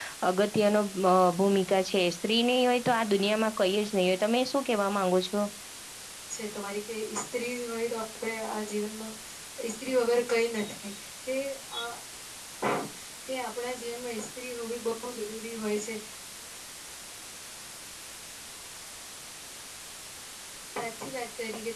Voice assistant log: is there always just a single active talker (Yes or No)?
Yes